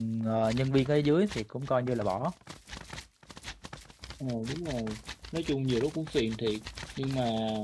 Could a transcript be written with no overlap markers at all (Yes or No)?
Yes